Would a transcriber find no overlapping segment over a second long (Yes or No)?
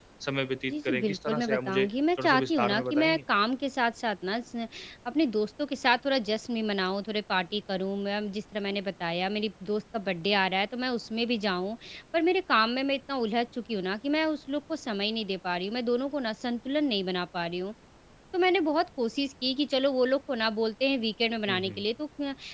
No